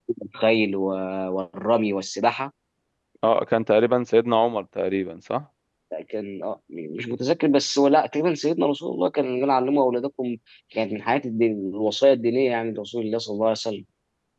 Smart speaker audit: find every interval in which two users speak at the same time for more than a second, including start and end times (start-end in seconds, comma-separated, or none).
none